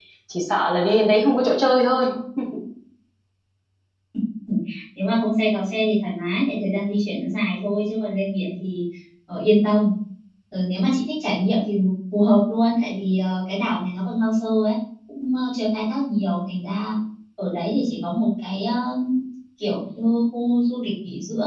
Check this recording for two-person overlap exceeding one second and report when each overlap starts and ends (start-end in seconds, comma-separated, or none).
none